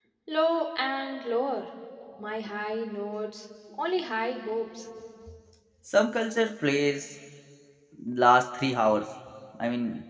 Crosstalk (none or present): none